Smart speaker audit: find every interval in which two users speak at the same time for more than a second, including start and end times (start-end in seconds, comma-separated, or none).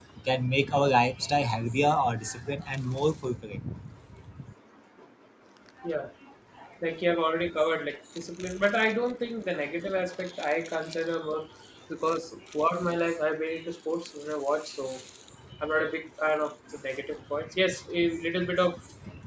none